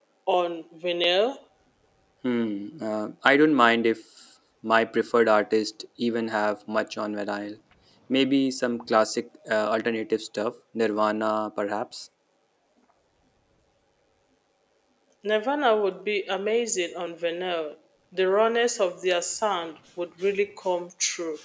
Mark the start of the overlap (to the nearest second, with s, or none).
none